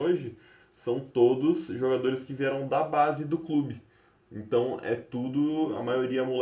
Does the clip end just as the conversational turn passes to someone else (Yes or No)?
No